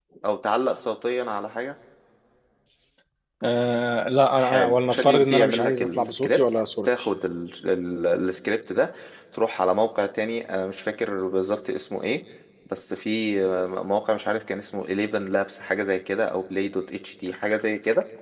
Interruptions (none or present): present